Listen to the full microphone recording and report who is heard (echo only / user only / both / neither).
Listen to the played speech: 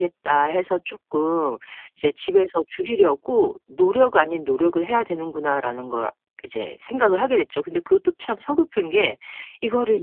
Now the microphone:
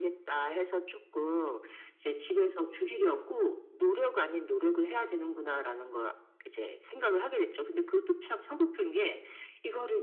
echo only